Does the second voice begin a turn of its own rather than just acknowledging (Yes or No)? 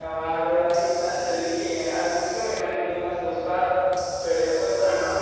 No